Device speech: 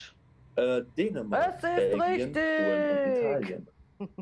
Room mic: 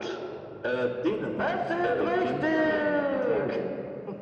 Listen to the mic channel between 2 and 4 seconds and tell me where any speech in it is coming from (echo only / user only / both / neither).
both